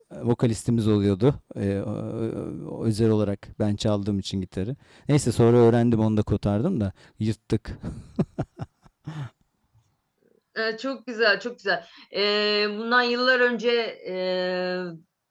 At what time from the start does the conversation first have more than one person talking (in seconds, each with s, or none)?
none